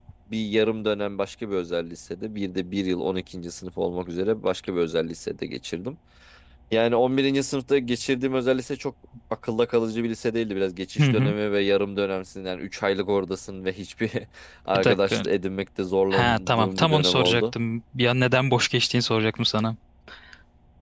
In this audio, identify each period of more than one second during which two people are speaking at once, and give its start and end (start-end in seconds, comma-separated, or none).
16.1-17.5